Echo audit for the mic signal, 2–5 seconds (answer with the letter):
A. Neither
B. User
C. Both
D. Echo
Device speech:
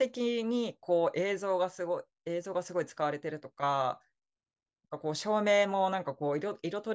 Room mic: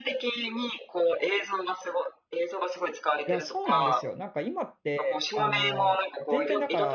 C